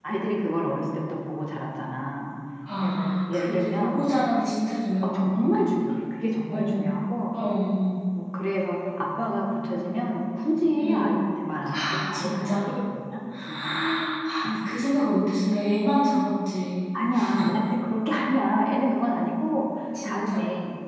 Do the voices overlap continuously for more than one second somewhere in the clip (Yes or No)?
Yes